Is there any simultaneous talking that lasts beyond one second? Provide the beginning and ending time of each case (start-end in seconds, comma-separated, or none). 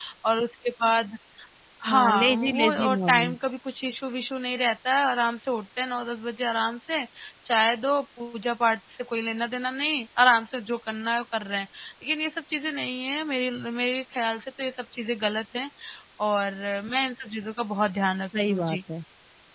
1.9-3.4